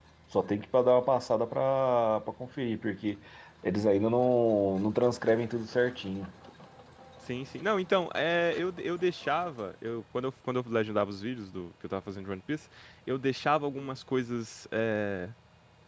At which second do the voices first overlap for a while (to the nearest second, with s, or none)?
none